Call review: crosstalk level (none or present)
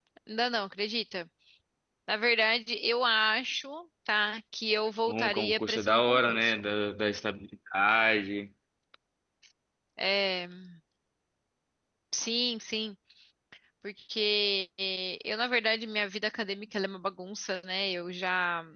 present